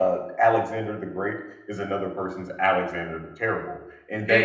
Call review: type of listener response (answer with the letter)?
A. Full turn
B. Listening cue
A